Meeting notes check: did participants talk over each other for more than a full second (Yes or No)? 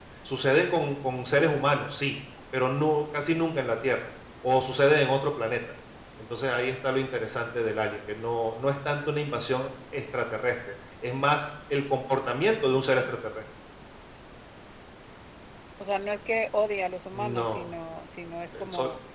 No